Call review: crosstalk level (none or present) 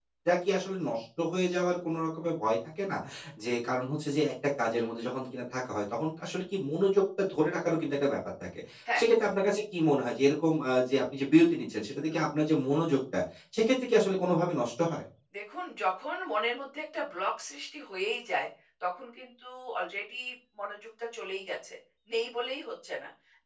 none